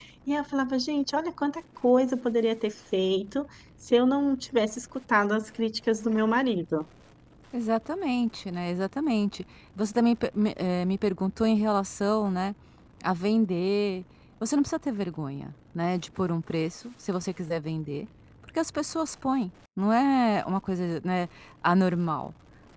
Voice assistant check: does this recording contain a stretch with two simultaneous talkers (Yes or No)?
No